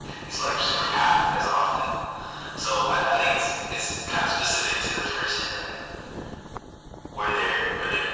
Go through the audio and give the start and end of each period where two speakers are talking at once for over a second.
none

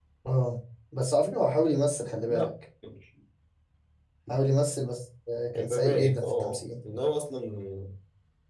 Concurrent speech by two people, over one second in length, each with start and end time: 5.6-6.8

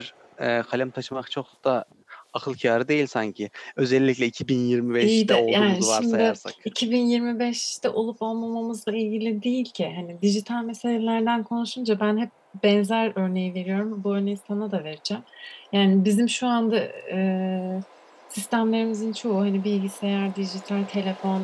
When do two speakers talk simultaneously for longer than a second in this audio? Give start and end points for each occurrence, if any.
5.0-6.4

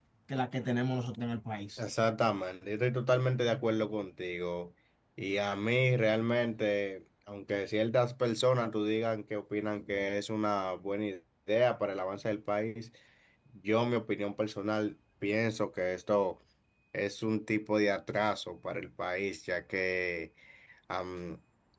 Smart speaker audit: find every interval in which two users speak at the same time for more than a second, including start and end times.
none

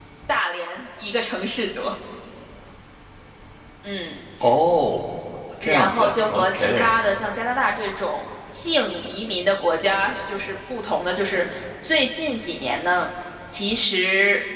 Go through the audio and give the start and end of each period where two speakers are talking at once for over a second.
5.6-6.9

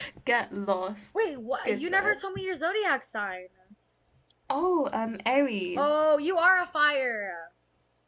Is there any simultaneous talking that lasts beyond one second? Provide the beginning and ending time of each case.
none

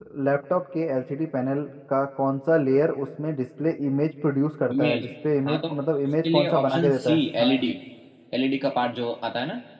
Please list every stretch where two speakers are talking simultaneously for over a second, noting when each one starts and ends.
6.3-7.6

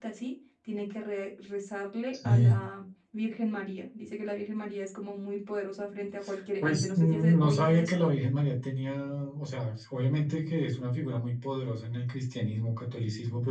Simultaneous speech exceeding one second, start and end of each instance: 6.6-8.0

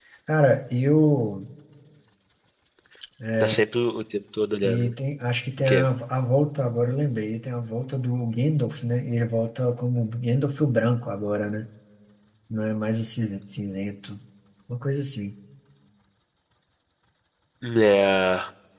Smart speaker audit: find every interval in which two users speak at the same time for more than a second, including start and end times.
none

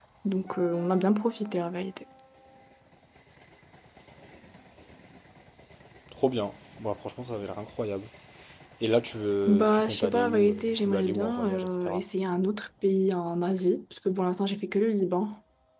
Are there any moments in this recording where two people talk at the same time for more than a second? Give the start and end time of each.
9.4-12.0

